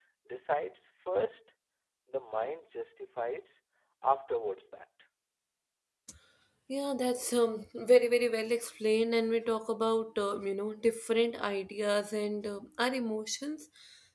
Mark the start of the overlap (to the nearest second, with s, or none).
none